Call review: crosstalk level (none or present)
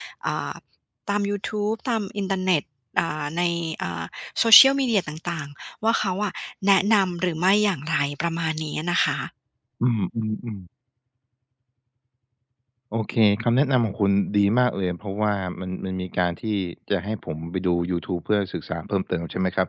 none